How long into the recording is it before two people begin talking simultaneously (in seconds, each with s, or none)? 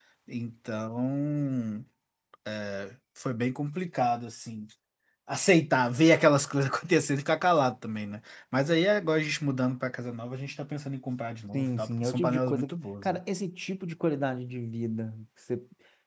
11.5 s